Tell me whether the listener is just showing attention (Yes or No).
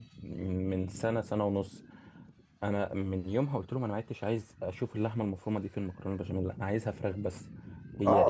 No